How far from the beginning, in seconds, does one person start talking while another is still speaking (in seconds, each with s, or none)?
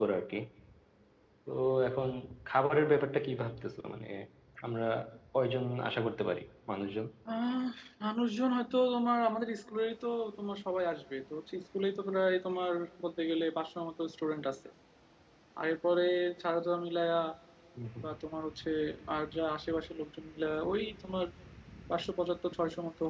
none